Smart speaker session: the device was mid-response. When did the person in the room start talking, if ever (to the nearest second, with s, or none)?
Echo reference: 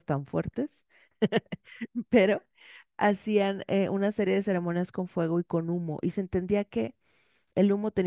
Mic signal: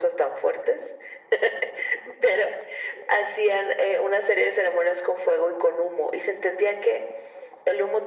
none